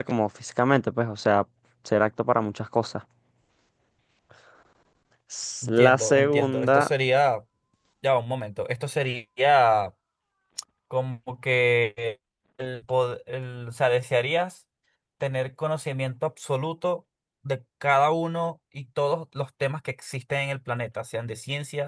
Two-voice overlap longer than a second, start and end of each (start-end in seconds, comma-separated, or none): 5.6-6.9